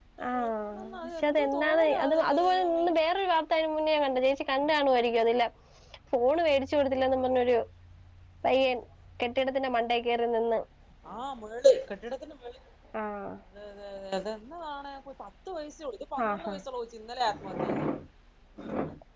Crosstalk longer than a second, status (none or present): present